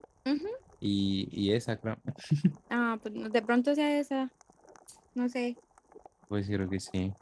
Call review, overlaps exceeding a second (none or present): none